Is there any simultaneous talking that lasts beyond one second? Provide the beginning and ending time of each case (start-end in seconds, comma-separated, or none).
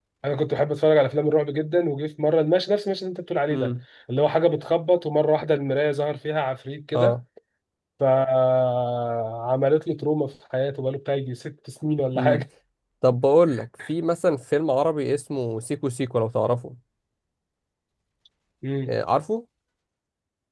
none